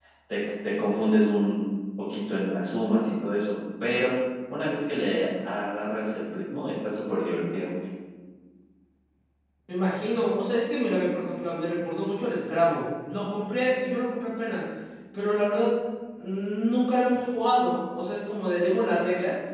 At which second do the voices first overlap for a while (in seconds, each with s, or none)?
none